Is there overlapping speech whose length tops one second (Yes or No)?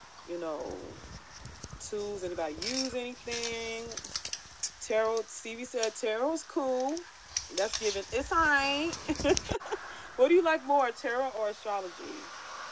No